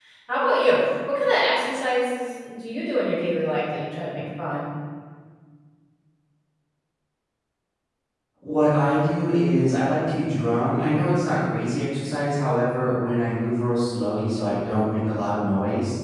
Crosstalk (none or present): none